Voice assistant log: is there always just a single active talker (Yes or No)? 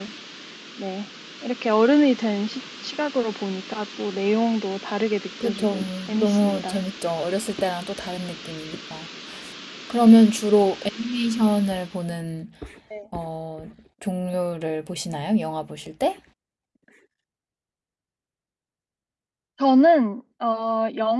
No